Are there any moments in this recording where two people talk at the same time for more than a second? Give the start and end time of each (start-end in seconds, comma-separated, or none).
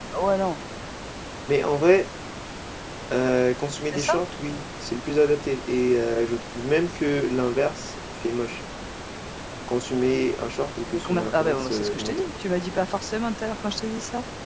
10.9-12.3